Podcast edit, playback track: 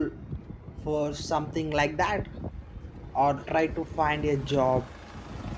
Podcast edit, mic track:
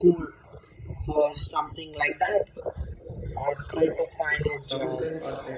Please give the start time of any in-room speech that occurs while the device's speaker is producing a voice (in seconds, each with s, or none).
4.5 s